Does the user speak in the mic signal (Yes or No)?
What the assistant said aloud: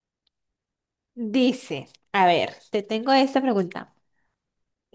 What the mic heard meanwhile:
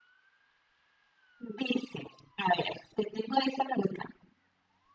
No